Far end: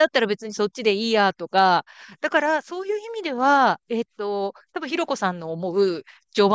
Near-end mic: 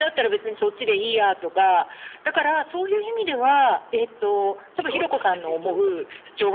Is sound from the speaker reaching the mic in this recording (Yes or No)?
Yes